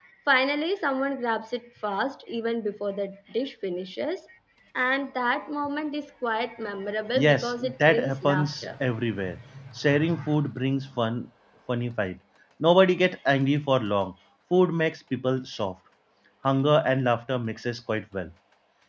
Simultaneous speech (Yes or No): Yes